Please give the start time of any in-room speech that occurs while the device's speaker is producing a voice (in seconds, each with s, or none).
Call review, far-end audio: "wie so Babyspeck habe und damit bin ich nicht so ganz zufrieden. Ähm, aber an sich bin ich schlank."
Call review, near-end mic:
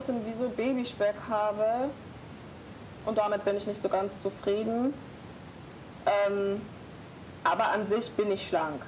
none